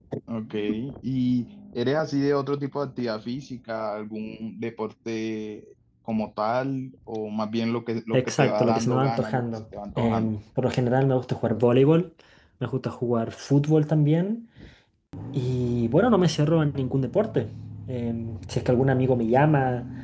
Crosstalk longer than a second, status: present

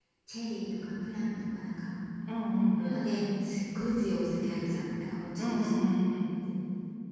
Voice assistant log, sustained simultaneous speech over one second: none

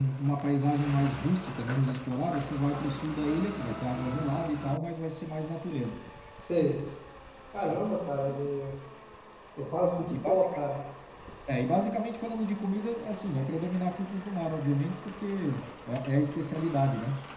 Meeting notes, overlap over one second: none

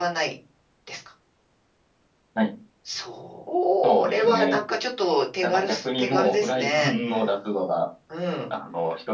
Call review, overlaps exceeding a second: present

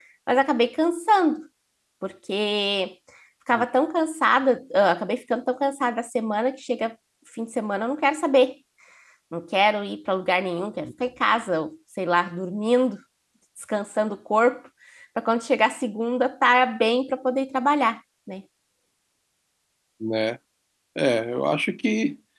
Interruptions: none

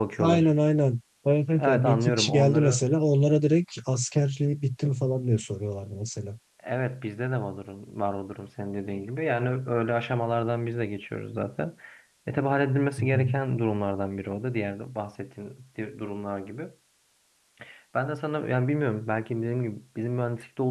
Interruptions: present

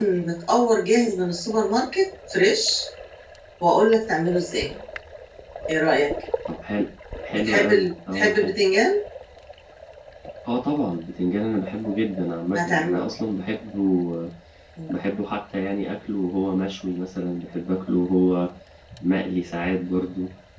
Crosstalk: present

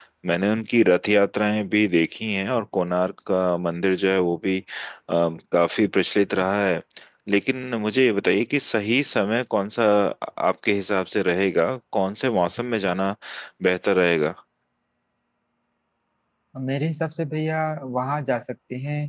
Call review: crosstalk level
none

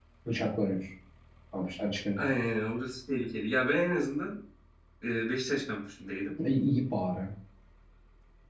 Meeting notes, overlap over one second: none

